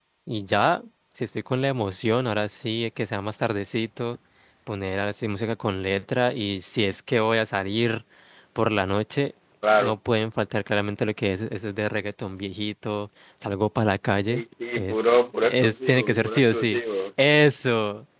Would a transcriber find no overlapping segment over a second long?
No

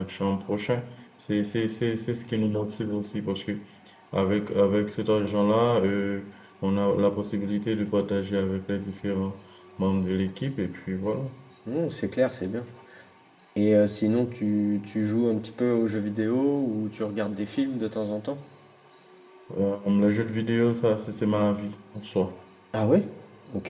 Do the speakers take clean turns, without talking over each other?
Yes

